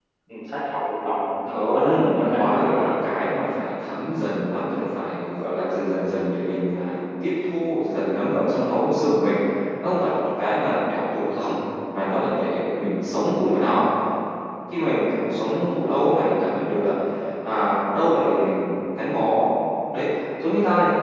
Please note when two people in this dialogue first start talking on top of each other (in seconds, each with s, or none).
1.4 s